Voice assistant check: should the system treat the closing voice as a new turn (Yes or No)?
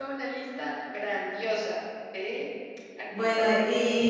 Yes